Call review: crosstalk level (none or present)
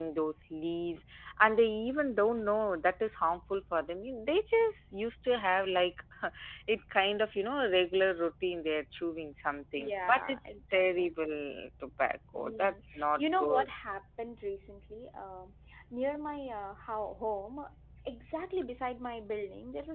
present